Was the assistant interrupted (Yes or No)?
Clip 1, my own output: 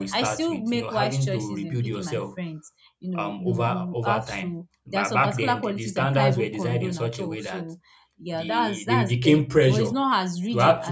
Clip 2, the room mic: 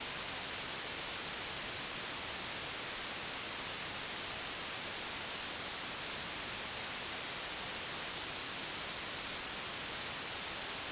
No